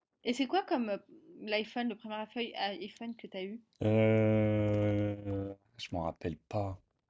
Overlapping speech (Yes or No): No